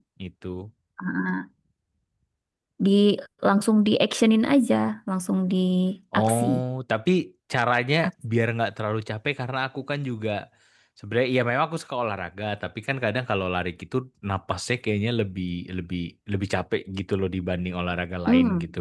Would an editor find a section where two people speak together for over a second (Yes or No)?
No